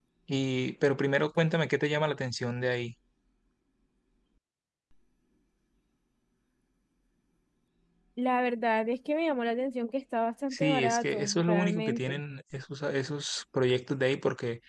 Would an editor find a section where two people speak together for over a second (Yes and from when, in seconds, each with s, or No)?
Yes, from 10.5 s